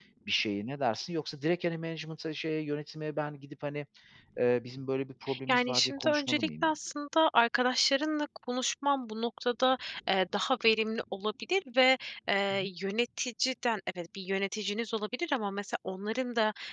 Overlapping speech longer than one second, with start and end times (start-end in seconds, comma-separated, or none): 5.5-6.7